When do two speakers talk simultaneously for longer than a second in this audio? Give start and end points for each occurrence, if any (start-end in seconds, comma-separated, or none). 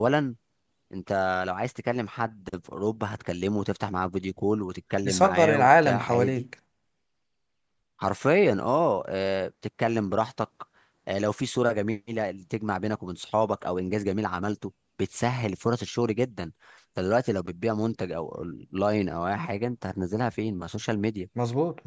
5.0-6.5